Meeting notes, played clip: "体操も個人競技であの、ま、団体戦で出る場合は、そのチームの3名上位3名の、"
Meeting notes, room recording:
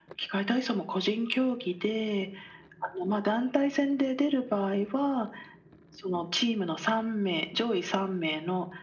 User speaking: No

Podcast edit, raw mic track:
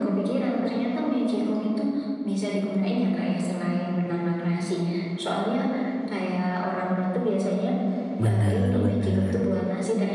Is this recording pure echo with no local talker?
No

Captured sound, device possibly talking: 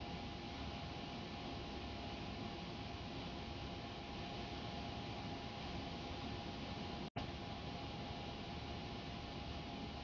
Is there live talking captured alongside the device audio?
No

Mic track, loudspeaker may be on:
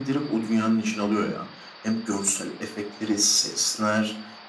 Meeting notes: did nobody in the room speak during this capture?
Yes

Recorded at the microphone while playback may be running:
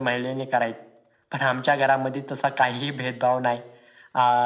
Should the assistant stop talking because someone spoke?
No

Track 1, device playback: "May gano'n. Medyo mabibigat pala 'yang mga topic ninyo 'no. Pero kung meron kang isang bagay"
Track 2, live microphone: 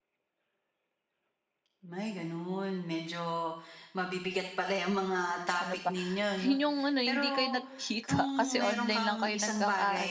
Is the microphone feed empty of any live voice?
No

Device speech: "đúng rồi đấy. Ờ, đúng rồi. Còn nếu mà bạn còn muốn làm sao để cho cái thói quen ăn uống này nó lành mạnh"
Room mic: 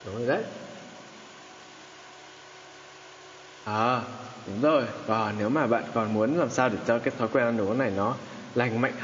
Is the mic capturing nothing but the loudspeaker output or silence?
Yes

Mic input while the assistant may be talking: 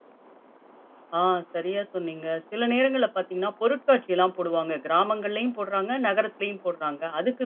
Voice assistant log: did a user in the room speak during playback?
Yes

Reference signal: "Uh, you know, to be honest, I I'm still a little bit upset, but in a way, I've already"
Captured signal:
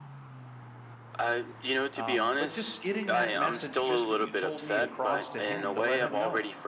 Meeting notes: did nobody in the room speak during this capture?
No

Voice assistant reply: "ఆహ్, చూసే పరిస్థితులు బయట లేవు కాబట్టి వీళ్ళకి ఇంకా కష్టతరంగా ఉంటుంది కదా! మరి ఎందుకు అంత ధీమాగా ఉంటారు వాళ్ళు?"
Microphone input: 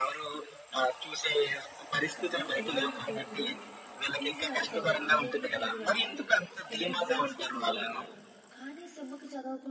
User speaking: Yes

